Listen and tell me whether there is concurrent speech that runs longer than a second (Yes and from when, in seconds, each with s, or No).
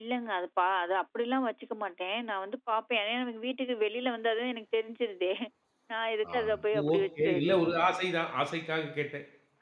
Yes, from 6.3 s